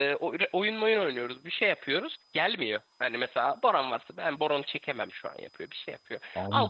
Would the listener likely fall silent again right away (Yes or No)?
No